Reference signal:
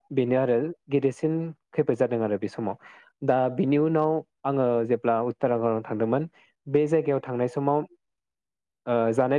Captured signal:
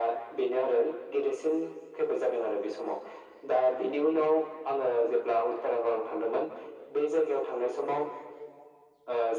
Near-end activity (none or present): none